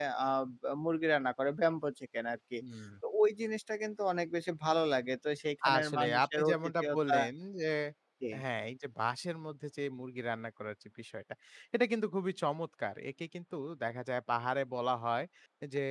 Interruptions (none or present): present